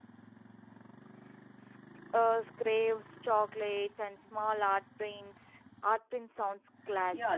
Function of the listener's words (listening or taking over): taking over